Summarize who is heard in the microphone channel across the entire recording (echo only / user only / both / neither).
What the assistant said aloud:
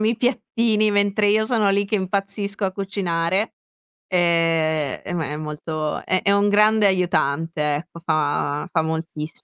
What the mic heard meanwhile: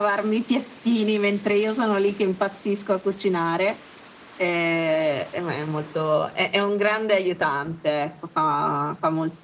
echo only